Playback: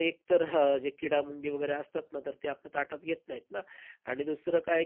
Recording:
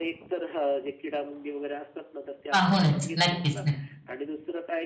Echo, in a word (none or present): present